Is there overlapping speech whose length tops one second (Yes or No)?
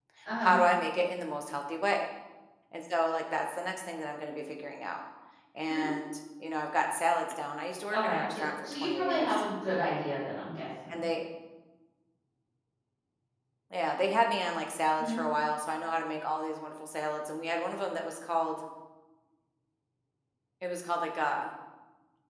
Yes